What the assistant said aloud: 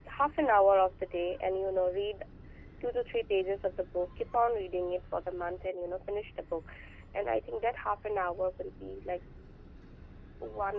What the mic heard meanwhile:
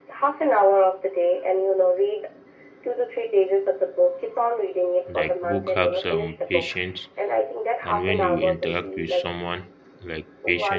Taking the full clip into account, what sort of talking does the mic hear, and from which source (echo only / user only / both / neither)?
both